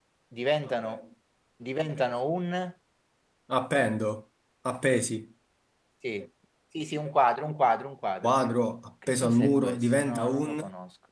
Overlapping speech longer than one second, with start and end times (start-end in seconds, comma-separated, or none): 9.1-10.6